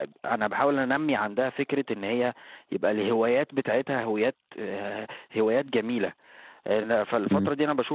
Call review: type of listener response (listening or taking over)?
listening